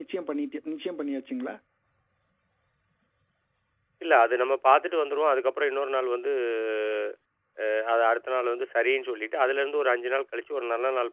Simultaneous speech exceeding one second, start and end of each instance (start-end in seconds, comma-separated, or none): none